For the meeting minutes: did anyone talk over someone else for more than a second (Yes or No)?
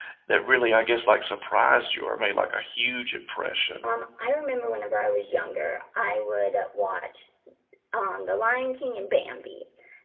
No